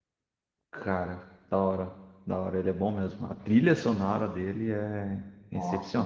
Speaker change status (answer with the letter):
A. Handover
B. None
A